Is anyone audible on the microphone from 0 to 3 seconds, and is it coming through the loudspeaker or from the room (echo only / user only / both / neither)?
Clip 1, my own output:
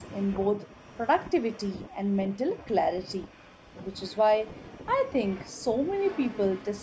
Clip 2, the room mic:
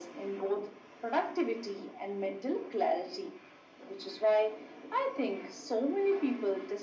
echo only